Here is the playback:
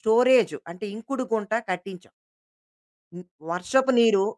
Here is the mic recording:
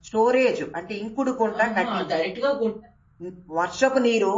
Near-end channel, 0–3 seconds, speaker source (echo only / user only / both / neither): both